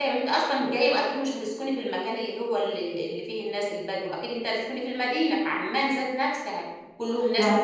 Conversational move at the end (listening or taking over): listening